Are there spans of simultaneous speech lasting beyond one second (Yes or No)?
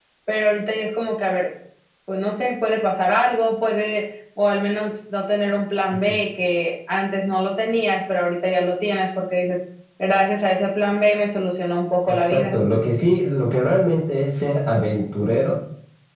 No